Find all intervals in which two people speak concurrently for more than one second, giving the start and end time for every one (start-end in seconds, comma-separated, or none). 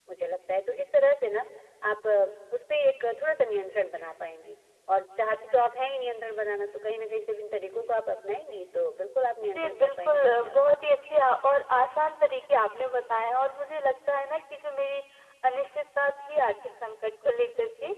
9.5-10.8